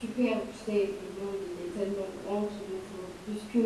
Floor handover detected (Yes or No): No